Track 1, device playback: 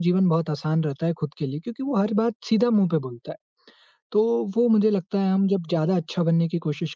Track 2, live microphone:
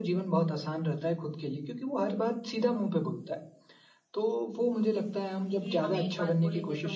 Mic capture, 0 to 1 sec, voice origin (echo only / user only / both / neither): echo only